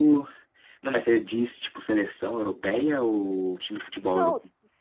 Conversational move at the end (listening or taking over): taking over